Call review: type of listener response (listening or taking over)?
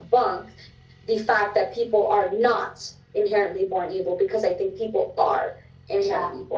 taking over